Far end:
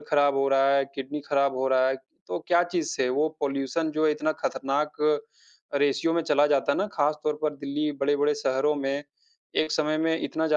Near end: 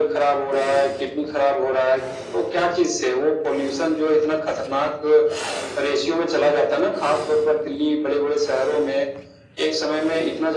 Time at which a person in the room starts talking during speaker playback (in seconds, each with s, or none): none